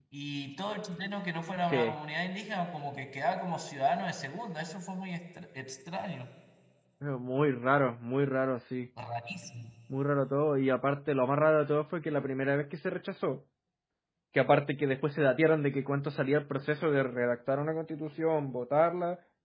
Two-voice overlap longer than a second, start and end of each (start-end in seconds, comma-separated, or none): none